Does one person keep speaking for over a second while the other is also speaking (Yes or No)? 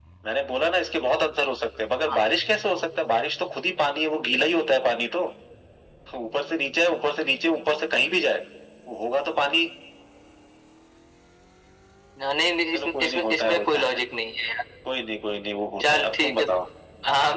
Yes